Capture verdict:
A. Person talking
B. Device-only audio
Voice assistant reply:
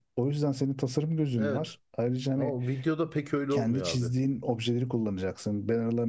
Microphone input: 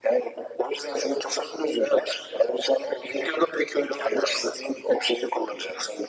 B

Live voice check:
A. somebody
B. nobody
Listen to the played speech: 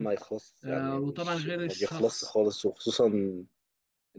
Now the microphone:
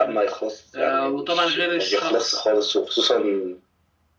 B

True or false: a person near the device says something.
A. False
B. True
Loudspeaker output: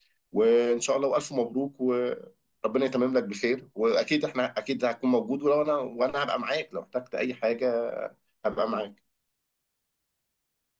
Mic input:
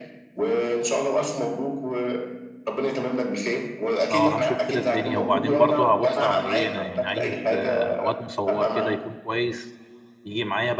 B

